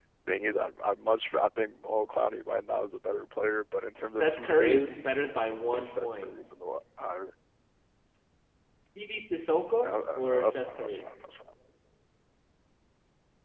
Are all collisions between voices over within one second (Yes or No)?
No